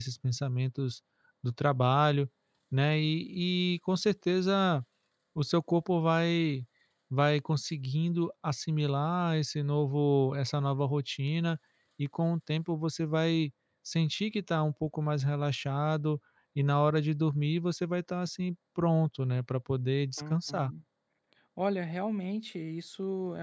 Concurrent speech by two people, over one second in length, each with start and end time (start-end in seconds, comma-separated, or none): none